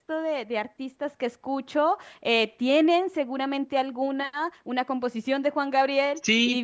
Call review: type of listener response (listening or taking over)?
taking over